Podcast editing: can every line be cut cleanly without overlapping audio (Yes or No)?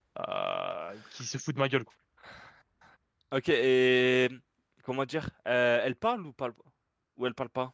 Yes